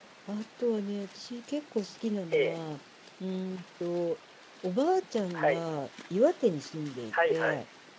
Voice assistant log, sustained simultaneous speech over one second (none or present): none